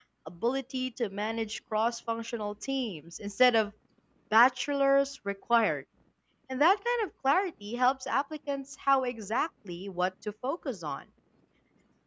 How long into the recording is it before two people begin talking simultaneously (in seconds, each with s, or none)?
none